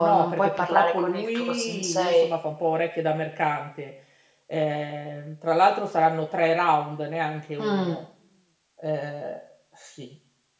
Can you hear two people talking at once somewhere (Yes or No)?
Yes